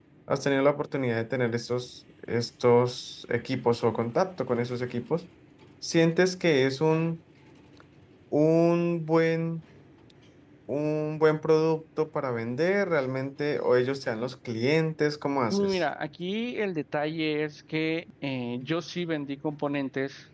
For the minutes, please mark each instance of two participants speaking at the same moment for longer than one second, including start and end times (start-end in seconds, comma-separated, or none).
none